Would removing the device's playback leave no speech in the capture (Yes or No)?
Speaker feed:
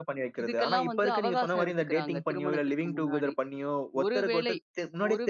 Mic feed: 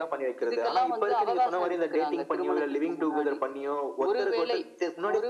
Yes